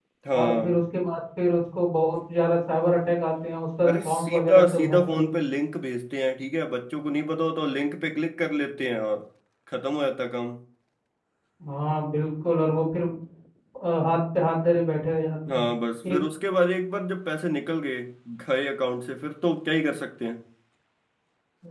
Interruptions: present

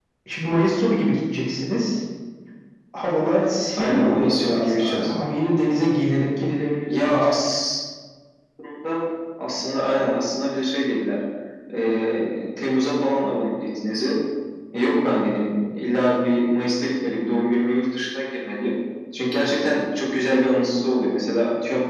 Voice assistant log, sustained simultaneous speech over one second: present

